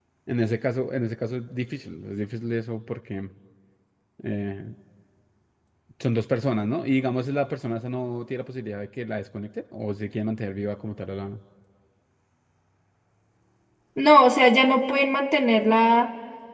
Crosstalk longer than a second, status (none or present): none